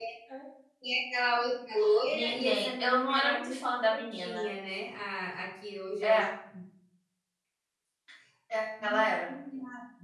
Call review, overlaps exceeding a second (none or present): present